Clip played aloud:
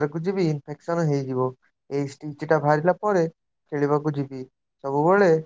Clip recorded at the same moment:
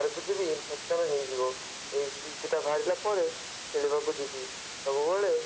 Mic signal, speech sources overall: echo only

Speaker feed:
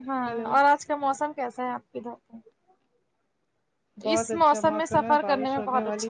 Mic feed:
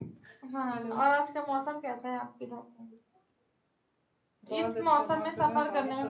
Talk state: echo only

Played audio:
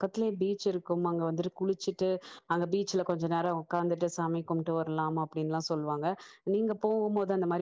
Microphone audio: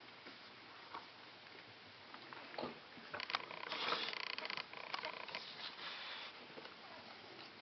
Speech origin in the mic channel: neither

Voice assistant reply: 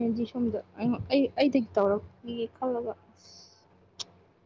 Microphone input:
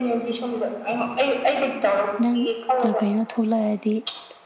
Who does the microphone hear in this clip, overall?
both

